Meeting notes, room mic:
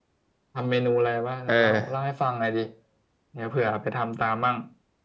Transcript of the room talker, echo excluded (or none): เออ